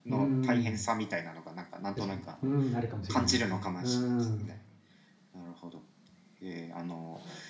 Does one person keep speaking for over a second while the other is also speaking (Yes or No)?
Yes